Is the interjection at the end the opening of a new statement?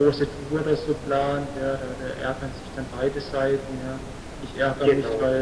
No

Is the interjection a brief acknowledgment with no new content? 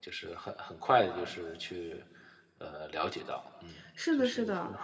No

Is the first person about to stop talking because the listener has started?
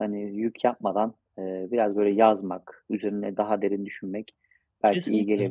No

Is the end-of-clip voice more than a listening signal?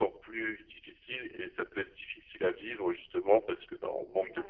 No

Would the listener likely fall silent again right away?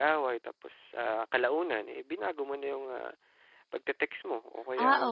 No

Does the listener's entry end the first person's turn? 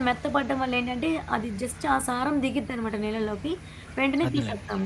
No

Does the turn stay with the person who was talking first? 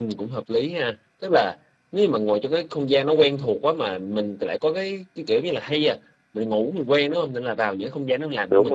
Yes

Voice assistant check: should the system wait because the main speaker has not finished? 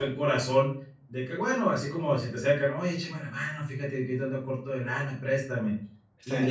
Yes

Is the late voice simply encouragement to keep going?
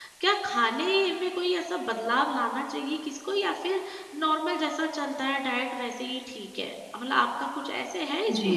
No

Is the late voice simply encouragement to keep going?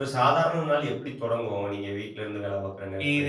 No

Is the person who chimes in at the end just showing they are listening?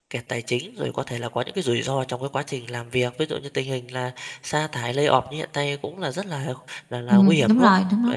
No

